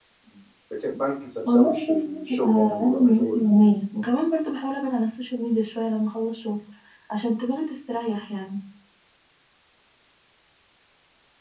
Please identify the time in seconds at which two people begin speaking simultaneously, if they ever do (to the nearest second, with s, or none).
1 s